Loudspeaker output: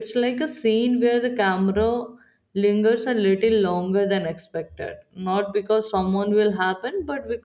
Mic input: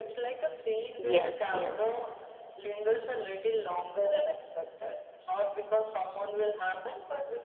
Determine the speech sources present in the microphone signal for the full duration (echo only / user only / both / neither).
both